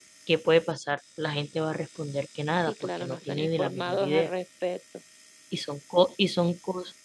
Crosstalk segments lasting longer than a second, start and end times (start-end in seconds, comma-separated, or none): 2.6-4.3